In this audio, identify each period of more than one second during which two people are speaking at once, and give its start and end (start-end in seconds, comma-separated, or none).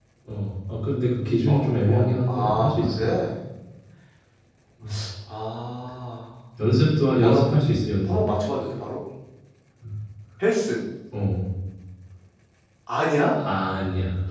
1.5-3.0